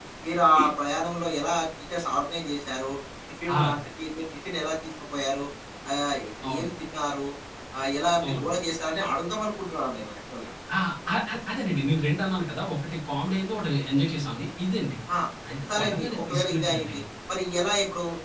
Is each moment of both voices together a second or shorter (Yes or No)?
No